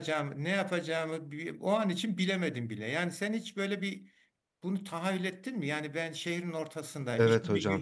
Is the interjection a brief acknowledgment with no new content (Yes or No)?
Yes